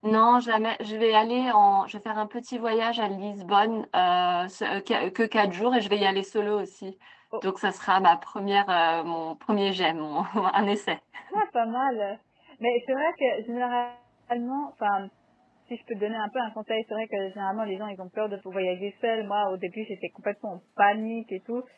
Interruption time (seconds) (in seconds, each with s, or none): none